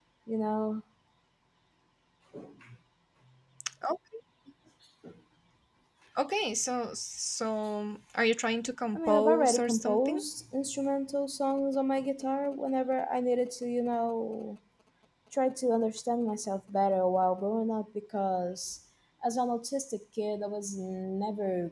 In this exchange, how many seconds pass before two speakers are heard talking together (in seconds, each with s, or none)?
8.9 s